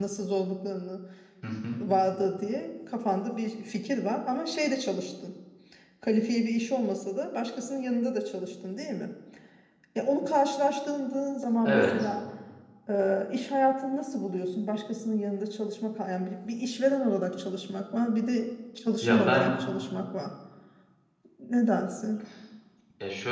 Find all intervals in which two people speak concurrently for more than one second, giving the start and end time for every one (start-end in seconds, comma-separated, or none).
none